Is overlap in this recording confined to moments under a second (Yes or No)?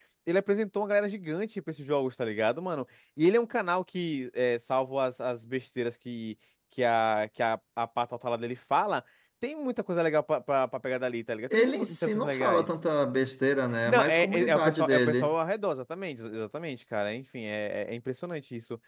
No